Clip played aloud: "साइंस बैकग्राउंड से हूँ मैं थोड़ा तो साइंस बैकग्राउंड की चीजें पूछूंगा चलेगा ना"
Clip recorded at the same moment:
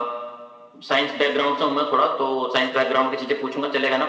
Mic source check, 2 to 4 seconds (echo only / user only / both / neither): echo only